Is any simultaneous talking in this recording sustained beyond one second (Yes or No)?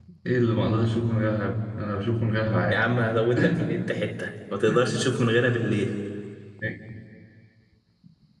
No